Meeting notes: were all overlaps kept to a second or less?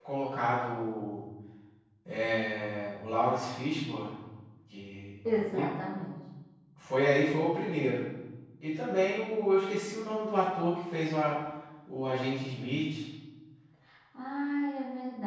Yes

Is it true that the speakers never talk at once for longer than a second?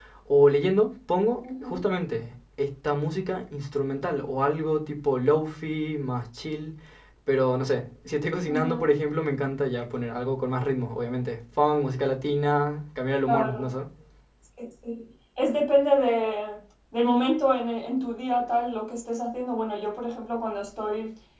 Yes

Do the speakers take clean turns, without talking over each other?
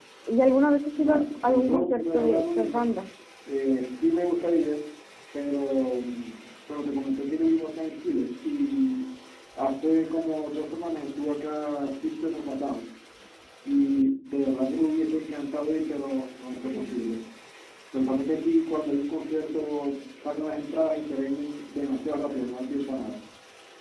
No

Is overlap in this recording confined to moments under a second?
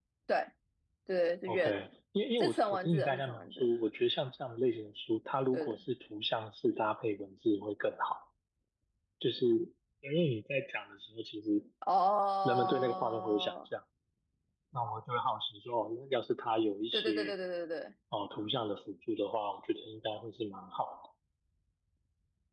No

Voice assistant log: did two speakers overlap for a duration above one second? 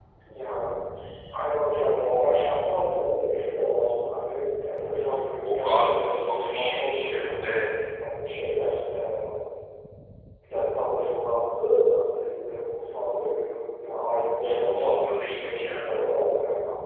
Yes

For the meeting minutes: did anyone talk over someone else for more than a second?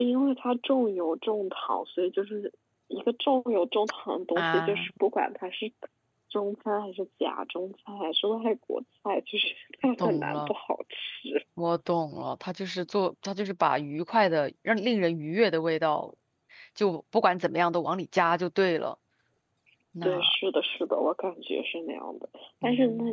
No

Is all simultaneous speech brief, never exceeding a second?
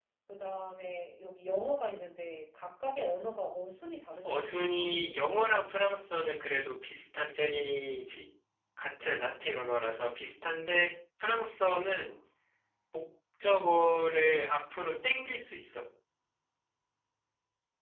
Yes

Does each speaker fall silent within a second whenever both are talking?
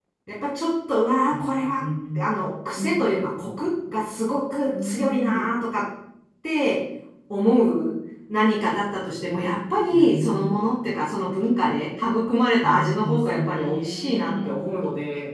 No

